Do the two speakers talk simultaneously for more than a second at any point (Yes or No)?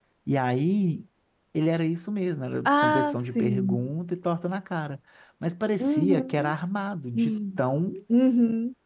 Yes